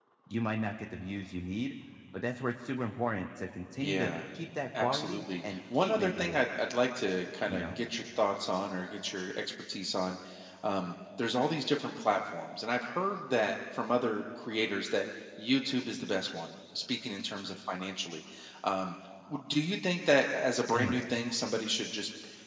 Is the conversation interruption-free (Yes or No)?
No